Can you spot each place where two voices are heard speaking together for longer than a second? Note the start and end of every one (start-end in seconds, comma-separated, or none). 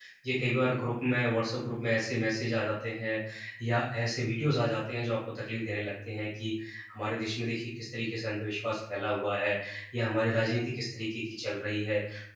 none